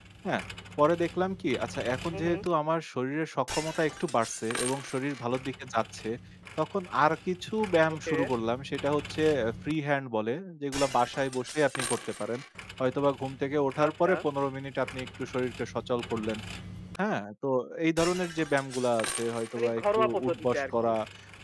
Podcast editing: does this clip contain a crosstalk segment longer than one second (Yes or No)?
Yes